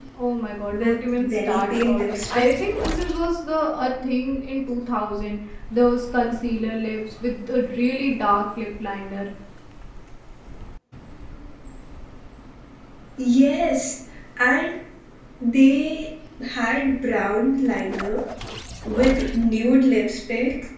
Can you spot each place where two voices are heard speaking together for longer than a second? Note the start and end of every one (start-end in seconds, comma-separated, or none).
0.7-2.6